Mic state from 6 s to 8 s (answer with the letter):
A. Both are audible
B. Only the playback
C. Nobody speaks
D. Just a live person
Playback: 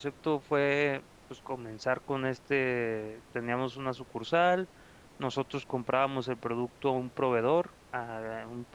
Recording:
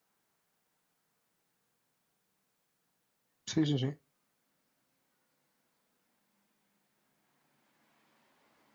C